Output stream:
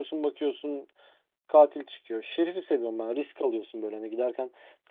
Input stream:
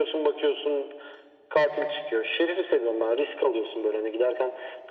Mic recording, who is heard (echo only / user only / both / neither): echo only